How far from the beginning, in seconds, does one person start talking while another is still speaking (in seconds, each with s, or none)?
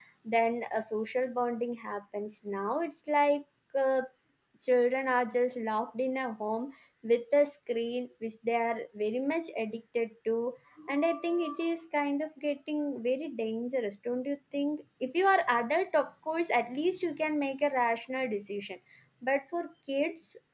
none